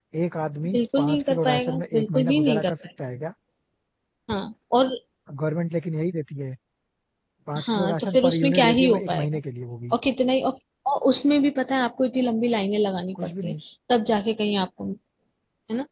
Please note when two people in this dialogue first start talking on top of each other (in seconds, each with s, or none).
0.6 s